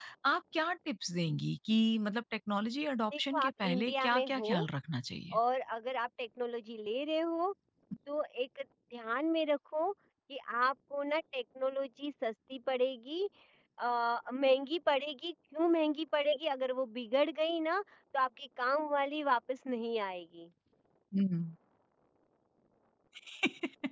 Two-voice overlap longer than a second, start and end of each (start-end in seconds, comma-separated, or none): 3.2-4.5